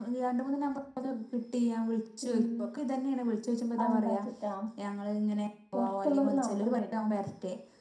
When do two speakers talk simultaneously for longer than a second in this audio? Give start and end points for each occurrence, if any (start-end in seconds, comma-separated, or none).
5.7-7.0